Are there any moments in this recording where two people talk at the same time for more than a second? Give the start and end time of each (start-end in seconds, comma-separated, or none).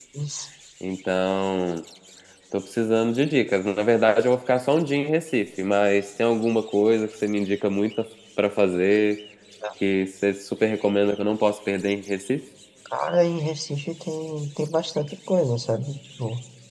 none